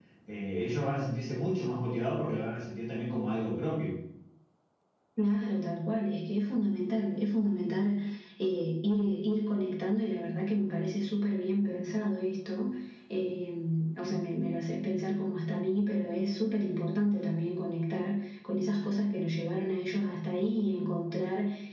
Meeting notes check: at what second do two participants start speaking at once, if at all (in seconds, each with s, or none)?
none